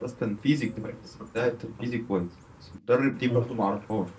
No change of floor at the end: Yes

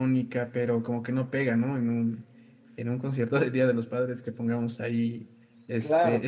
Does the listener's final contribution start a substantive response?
Yes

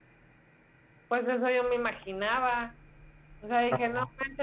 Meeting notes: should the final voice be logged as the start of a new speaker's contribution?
No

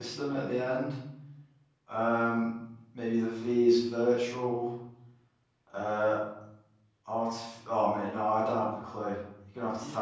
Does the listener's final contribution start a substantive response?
Yes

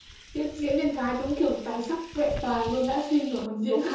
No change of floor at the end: No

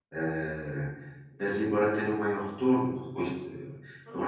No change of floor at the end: Yes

